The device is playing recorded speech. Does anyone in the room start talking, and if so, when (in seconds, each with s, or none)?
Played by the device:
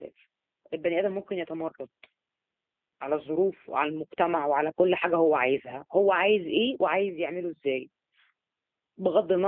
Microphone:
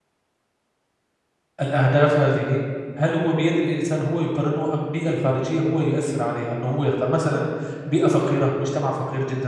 1.6 s